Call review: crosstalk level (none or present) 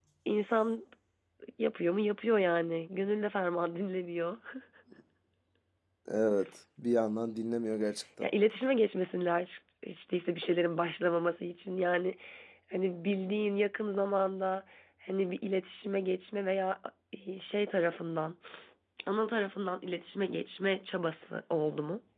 none